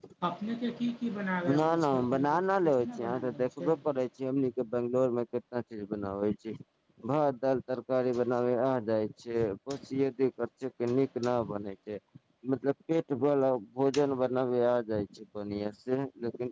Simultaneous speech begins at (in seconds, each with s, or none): 1.4 s